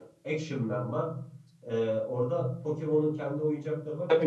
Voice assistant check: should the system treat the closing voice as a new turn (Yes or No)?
Yes